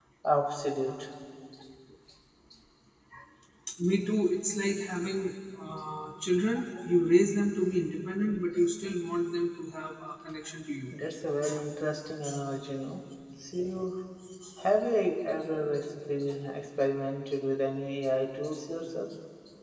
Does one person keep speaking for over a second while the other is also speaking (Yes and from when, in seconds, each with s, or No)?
No